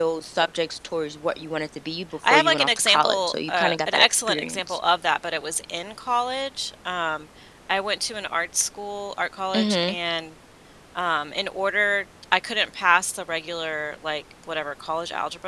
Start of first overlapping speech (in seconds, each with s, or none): 2.3 s